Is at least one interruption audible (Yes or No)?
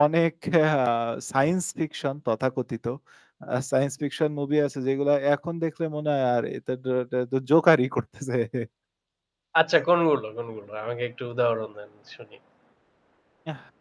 No